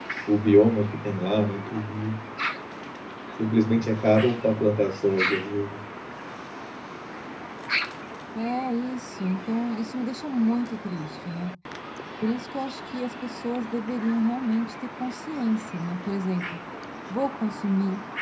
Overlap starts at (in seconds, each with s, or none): none